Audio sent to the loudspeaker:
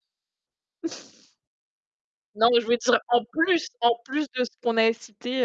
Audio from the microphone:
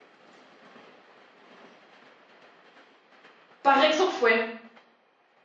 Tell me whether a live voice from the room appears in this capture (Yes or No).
Yes